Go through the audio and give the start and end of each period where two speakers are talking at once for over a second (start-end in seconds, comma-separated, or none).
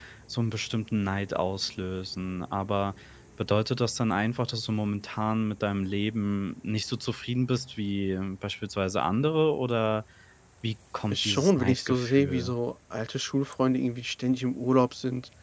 11.1-12.5